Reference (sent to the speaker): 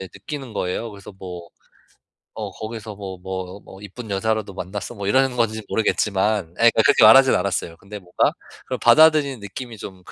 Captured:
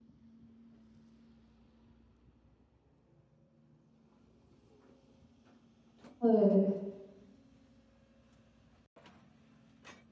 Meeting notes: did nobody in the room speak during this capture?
No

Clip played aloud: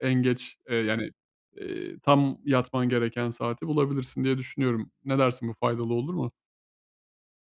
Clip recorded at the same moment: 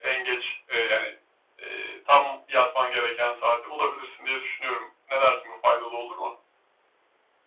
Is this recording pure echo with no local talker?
Yes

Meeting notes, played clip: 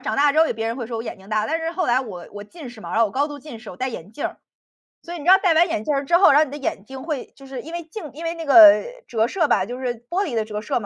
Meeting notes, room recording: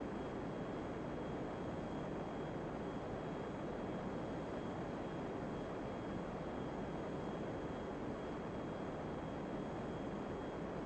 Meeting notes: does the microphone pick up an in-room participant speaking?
No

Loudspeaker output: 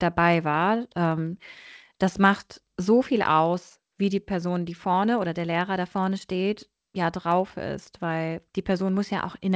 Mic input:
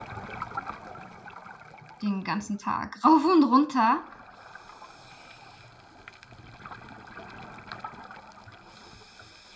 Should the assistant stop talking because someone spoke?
Yes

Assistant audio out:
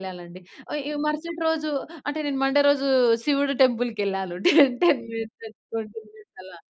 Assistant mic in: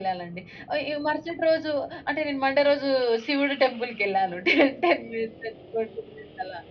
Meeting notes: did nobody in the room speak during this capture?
Yes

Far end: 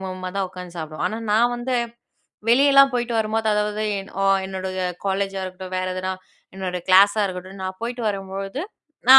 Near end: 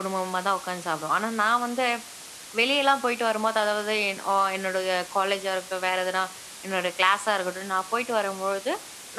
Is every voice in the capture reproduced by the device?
Yes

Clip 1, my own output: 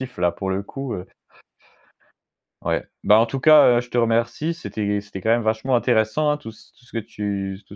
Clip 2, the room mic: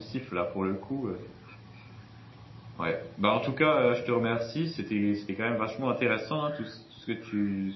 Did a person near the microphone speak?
No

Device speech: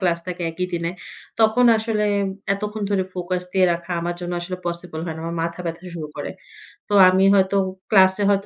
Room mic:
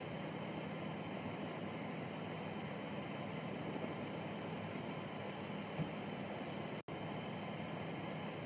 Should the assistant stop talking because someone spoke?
No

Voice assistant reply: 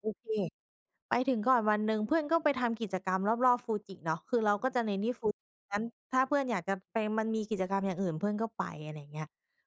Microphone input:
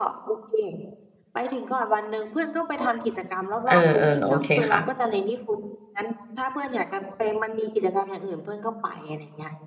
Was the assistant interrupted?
Yes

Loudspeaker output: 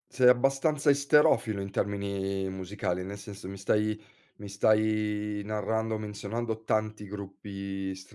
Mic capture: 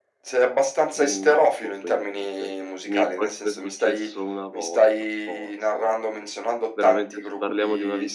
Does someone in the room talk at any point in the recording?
Yes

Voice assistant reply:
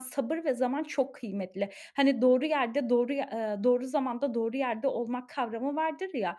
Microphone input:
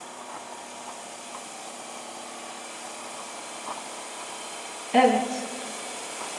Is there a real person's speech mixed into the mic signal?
Yes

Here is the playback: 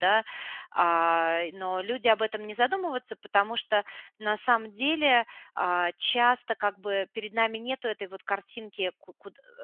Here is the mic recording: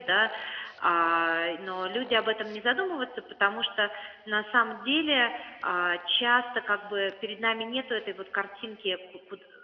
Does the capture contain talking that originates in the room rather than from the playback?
No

